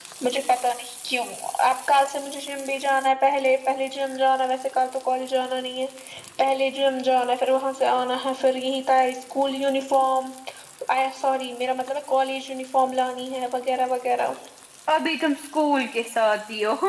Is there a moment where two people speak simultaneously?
No

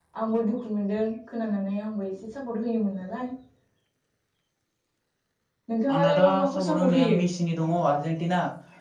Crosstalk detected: Yes, from 5.9 s

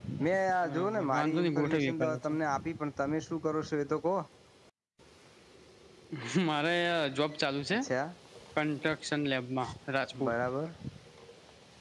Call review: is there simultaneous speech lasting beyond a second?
Yes, from 0.7 s

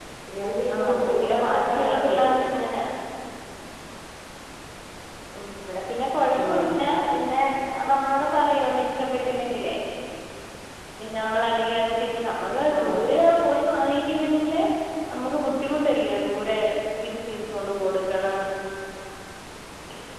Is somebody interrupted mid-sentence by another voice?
Yes, from 0.7 s

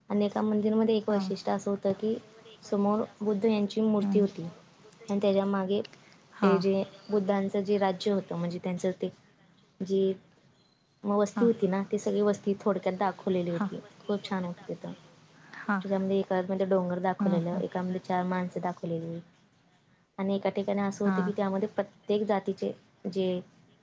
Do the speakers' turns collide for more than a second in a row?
No

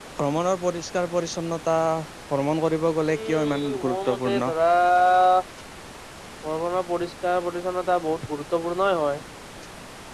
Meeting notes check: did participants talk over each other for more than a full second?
Yes, from 3.2 s

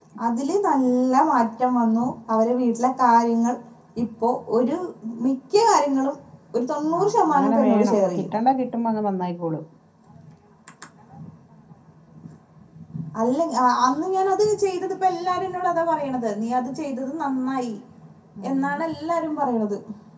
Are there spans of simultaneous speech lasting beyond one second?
Yes, from 7.0 s

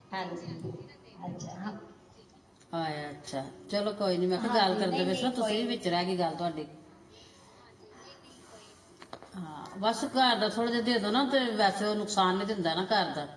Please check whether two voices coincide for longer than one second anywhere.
Yes, from 4.3 s

